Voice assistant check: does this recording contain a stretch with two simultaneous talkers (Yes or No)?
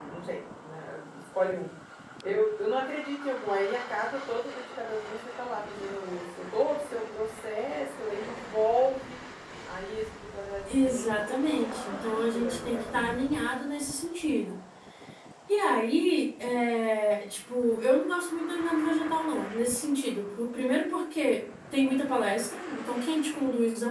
Yes